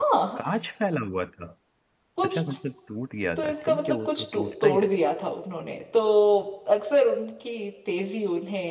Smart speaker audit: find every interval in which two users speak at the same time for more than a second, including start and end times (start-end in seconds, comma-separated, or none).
3.4-5.0